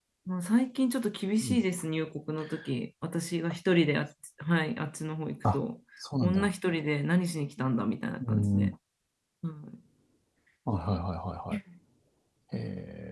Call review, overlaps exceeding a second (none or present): none